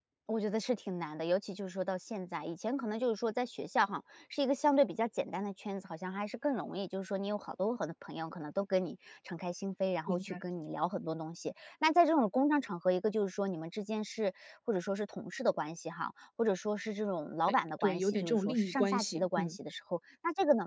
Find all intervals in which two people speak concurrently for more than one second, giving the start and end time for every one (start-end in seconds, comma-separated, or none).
17.5-19.6